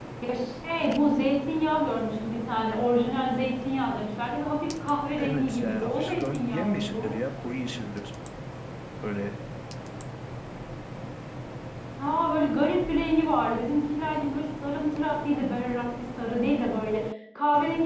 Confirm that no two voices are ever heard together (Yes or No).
No